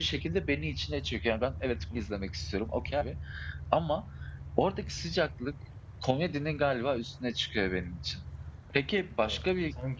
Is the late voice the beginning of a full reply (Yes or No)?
No